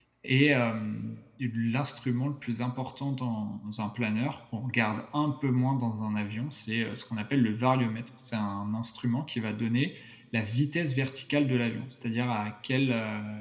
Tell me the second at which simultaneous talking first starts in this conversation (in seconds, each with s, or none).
none